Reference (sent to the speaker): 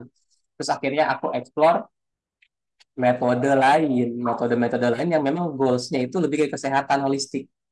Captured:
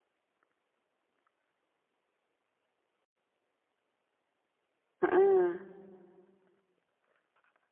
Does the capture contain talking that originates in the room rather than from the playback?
Yes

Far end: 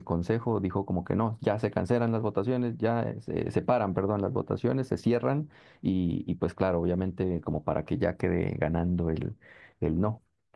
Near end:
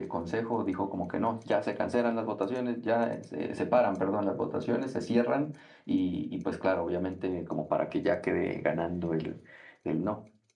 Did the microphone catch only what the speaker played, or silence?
Yes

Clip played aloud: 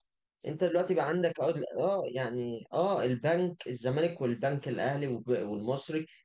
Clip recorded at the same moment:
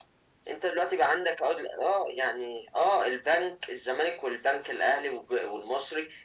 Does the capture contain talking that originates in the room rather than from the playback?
No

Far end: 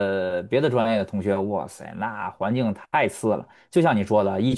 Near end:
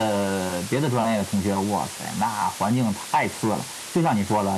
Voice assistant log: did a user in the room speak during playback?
No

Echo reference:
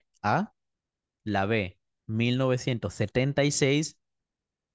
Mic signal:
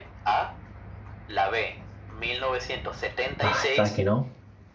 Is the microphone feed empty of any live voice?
No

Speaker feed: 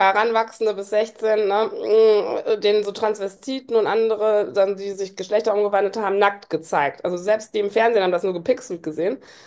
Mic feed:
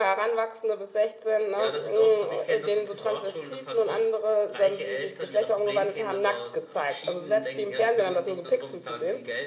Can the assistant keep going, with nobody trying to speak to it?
No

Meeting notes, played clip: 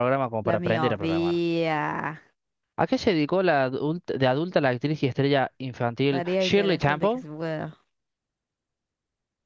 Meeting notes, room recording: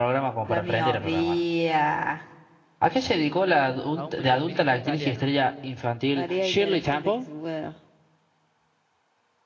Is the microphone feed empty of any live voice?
No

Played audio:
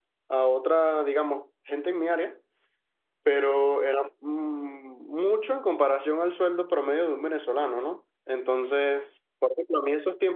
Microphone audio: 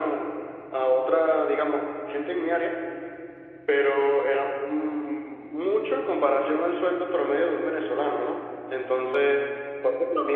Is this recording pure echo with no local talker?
Yes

